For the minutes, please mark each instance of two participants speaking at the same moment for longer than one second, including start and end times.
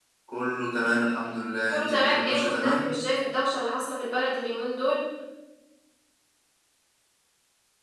1.7-3.0

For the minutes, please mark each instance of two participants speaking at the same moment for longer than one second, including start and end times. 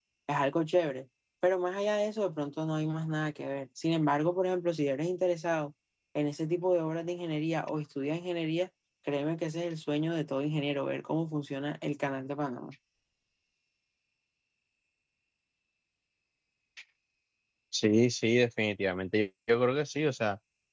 none

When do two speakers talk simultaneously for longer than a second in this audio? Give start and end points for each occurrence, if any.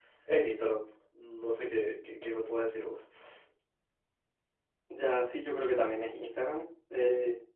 none

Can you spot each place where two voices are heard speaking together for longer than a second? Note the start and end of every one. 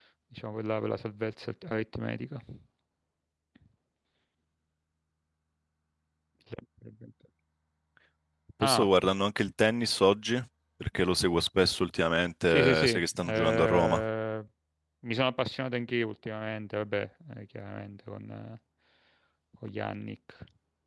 12.5-14.0

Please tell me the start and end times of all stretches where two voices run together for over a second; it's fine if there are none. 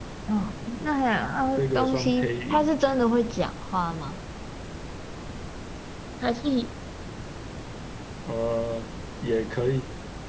1.6-2.8

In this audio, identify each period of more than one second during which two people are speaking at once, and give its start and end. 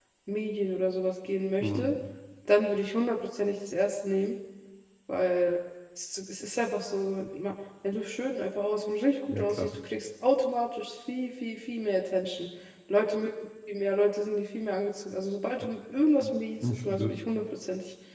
none

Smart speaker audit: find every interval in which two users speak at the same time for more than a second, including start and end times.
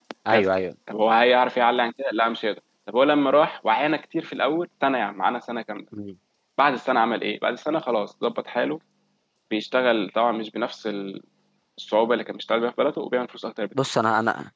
none

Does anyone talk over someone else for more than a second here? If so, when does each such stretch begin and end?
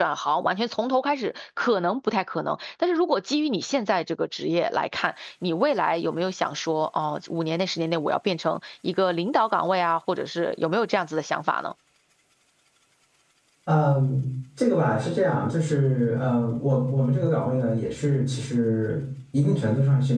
none

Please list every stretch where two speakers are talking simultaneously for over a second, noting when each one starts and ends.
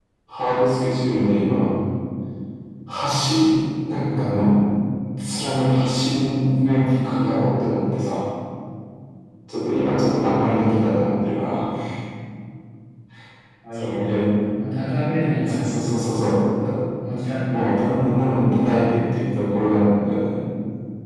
none

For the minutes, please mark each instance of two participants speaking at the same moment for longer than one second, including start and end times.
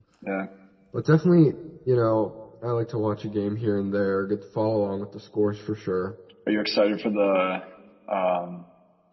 none

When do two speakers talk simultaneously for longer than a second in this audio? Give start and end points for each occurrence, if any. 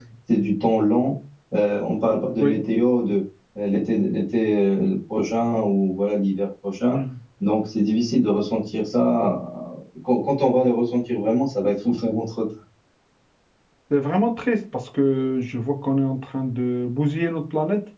none

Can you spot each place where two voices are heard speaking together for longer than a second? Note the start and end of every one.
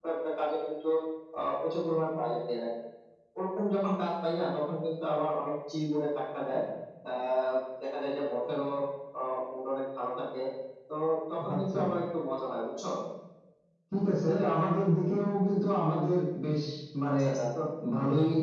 none

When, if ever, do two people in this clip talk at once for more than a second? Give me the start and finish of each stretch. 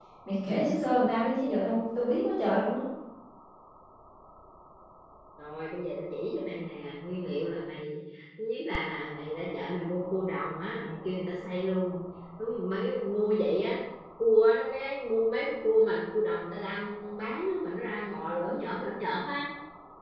none

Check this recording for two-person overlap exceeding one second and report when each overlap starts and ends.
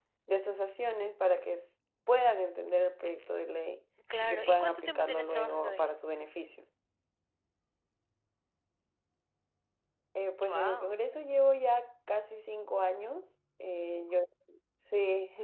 4.2-5.9

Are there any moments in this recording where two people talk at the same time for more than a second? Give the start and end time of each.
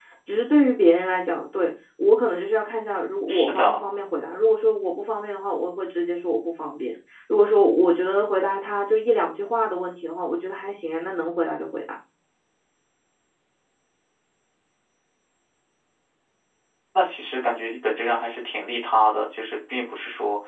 none

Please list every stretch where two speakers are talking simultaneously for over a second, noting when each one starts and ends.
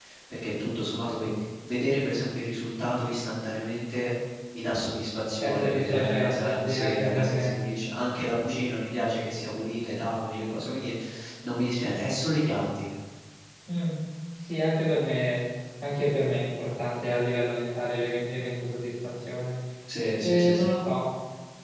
5.4-7.5

